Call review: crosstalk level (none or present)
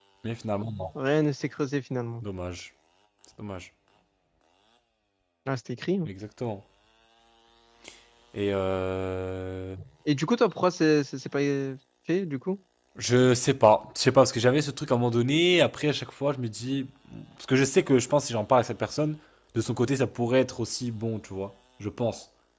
none